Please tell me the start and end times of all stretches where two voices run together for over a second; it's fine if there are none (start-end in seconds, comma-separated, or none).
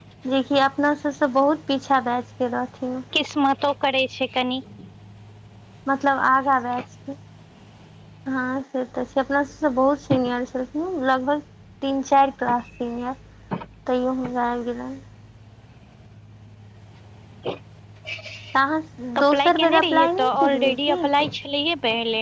19.3-21.0